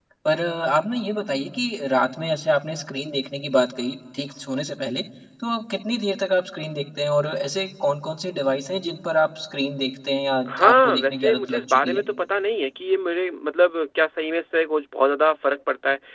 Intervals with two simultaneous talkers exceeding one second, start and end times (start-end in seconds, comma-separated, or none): 10.6-12.0